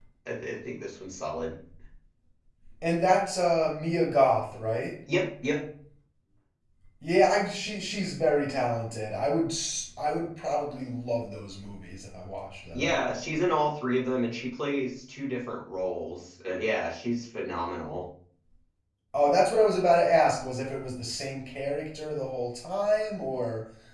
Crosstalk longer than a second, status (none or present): none